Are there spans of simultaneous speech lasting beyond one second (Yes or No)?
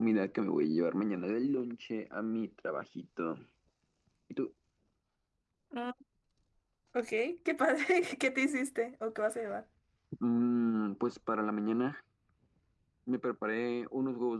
No